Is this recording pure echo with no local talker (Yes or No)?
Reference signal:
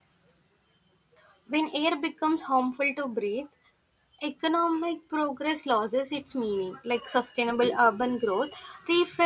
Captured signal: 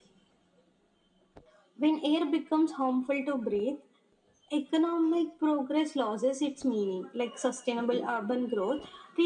Yes